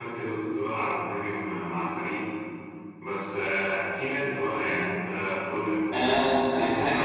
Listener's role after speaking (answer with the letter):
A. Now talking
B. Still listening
A